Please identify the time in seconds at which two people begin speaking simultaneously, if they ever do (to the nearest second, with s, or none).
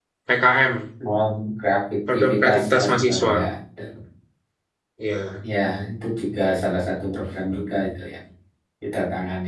2 s